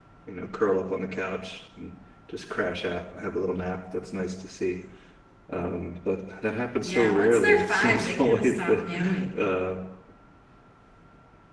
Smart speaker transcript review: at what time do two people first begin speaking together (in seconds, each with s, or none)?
6.8 s